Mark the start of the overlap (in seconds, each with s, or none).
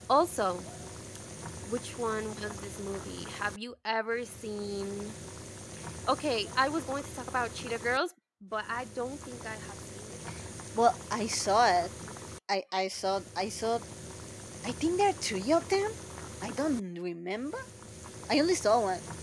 none